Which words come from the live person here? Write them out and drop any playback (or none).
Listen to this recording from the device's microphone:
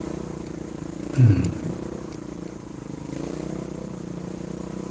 হুম।